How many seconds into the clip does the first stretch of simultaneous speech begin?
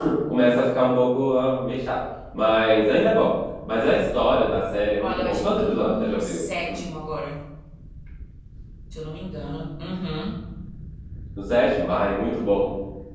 5.0 s

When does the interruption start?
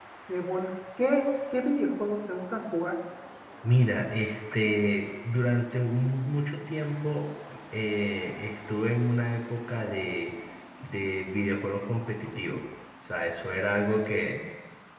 none

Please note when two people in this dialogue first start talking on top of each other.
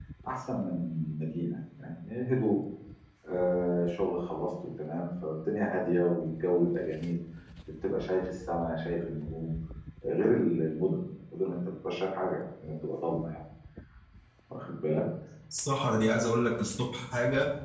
none

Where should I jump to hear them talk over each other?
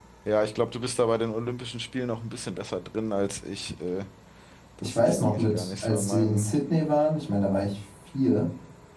4.8 s

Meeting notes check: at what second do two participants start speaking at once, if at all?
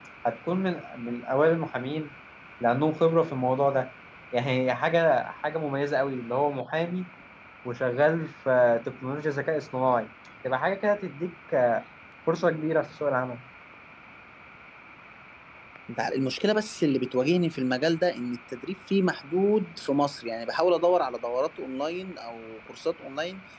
none

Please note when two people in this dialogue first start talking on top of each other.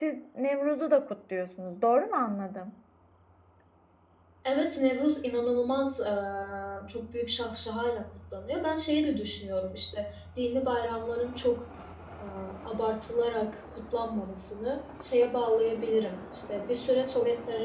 none

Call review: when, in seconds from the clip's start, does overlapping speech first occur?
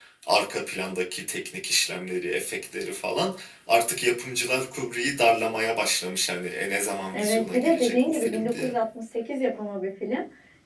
7.1 s

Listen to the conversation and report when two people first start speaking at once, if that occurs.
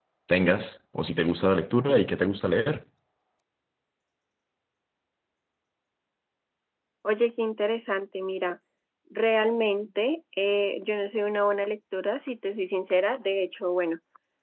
none

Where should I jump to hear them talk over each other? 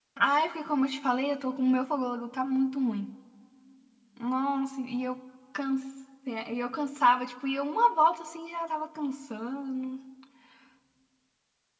none

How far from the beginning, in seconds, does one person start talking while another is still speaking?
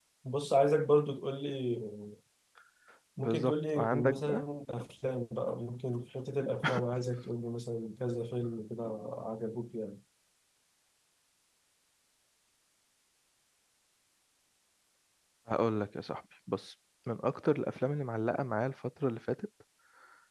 3.2 s

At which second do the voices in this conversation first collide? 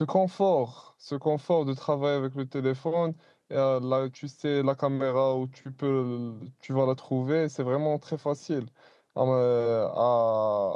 none

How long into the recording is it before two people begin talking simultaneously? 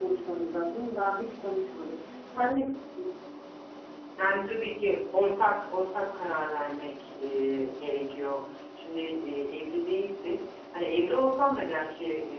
none

